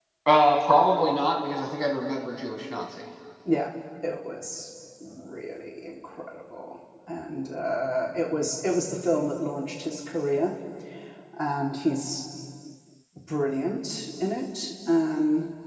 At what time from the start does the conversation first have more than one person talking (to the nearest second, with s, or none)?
none